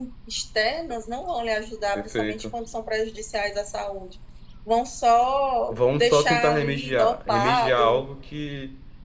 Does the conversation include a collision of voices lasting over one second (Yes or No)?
Yes